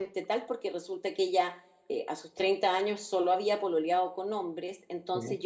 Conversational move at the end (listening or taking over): listening